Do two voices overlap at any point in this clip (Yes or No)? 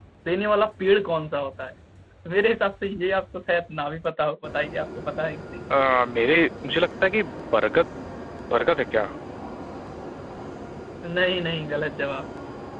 No